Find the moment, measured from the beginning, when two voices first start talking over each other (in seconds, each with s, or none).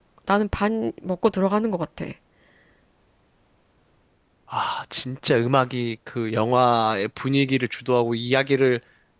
none